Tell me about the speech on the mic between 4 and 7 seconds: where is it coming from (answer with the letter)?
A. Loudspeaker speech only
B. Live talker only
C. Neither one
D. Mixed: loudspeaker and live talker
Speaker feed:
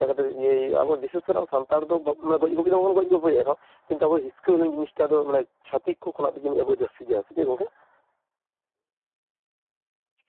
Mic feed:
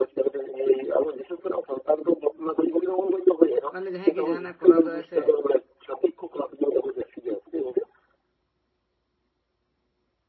D